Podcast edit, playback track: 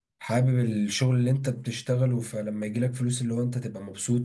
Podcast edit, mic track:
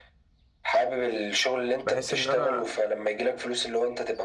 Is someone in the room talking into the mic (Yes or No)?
Yes